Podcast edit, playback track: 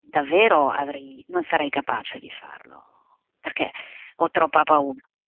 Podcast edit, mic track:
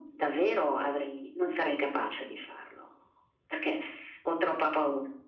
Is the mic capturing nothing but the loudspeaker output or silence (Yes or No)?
Yes